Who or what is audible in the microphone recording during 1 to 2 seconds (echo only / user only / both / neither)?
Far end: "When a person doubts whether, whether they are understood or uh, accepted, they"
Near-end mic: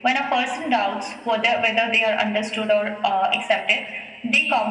echo only